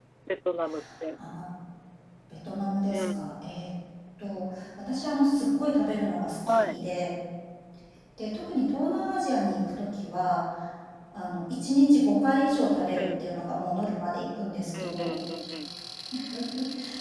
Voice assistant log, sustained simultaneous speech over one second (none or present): none